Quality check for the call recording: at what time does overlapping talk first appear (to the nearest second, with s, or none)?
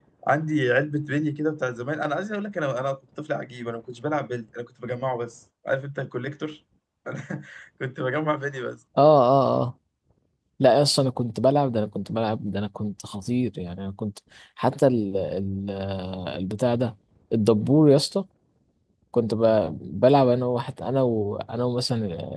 none